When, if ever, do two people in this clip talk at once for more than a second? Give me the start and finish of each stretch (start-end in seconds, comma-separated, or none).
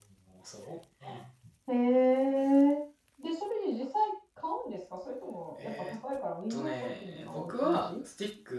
6.5-8.0